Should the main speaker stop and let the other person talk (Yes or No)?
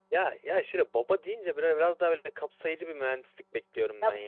Yes